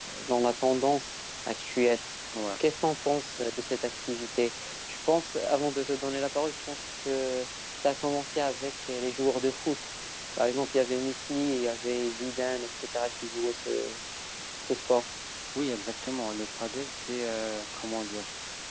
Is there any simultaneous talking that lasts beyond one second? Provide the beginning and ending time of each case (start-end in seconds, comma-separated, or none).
none